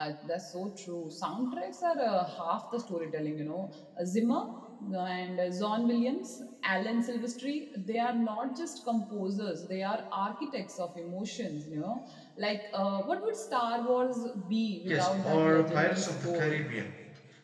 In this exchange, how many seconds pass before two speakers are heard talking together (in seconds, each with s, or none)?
14.9 s